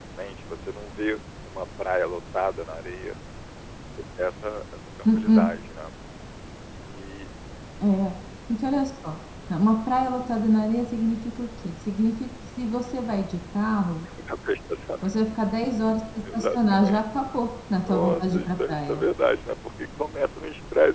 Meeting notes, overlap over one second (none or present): present